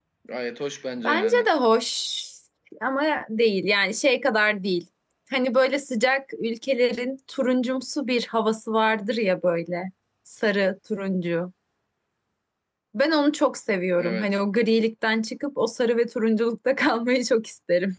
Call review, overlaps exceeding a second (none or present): none